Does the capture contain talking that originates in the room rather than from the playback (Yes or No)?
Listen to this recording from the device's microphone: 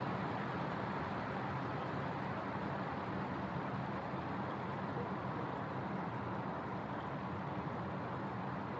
No